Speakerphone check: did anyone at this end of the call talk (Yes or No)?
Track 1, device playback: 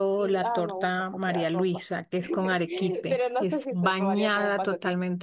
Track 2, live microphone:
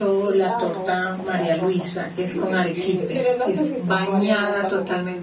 Yes